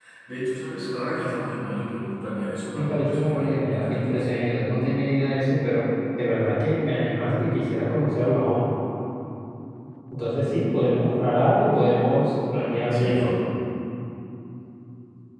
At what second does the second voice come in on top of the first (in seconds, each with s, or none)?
2.7 s